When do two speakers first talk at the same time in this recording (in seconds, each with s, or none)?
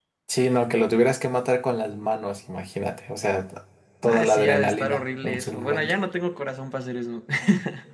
4.1 s